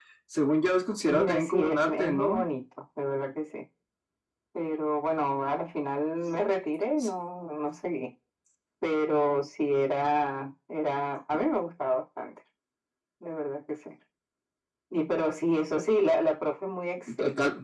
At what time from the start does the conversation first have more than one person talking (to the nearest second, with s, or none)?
1 s